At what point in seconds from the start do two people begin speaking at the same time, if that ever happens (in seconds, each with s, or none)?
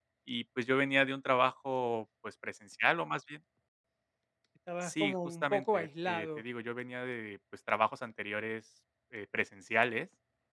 4.8 s